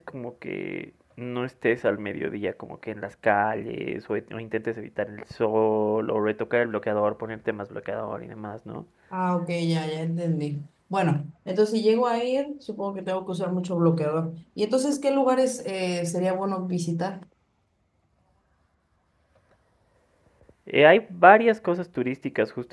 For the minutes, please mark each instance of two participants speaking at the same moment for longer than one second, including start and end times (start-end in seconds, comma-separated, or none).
none